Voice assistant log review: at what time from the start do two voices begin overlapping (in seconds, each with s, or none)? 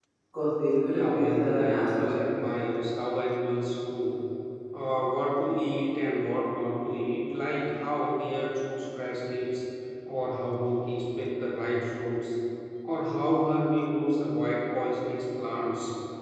0.9 s